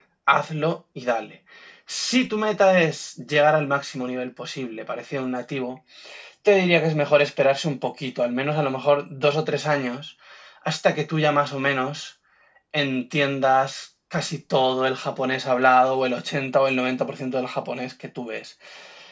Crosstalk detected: No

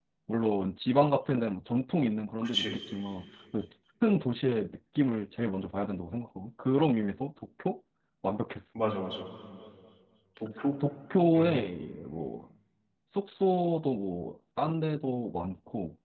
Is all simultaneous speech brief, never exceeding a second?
Yes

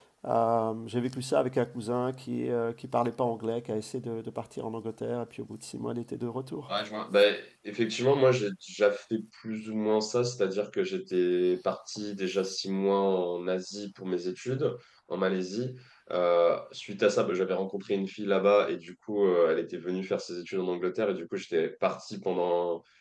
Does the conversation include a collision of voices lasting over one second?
No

